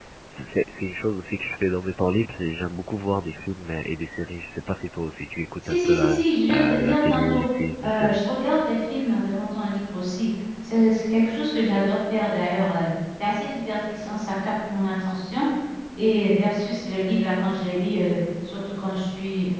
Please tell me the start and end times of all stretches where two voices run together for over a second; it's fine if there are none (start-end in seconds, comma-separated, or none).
5.6-7.4